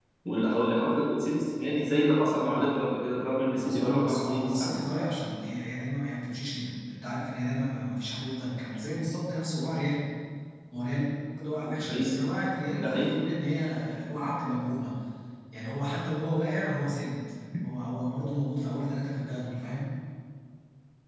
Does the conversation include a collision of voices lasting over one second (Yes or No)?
Yes